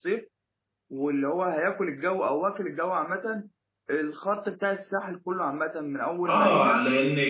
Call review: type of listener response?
taking over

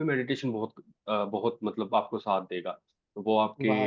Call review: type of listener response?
taking over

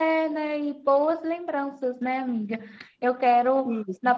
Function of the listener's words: listening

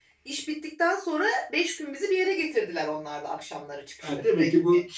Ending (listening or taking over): taking over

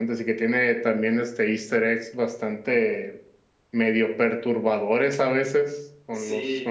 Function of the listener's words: taking over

